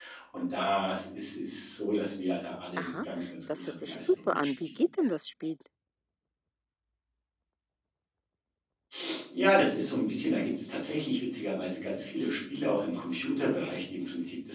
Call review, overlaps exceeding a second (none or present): present